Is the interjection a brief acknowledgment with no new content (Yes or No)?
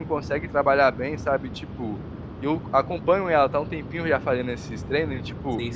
Yes